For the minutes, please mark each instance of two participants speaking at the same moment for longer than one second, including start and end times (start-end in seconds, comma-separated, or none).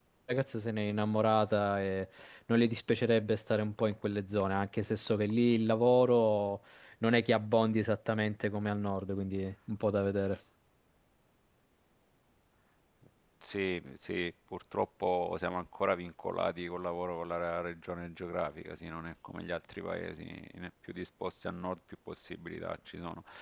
none